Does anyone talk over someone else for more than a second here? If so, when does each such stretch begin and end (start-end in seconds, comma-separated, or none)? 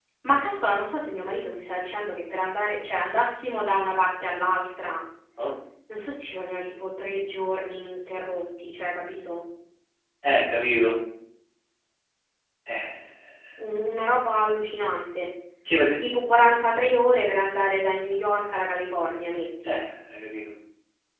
none